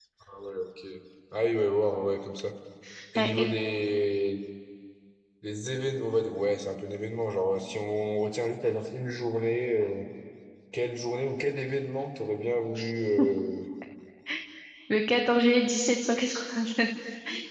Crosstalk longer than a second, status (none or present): none